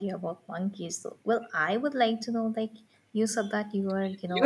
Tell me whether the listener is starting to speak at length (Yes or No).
Yes